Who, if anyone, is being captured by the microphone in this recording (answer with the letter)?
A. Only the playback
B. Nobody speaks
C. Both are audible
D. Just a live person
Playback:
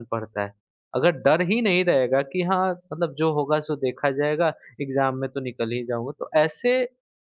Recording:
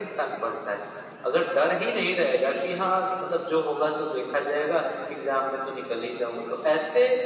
A